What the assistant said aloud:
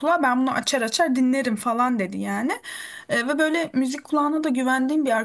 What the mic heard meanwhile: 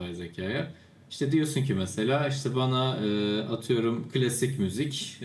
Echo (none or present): none